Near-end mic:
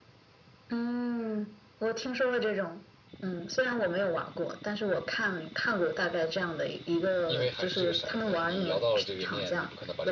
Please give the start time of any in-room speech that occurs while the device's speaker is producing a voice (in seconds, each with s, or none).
7.2 s